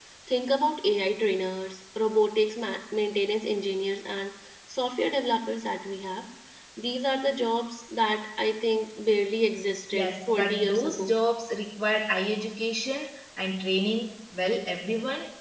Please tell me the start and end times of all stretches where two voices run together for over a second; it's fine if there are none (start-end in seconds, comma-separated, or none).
9.9-11.1